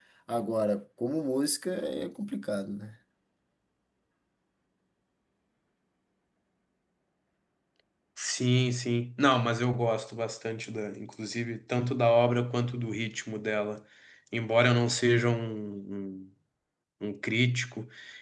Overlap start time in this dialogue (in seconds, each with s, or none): none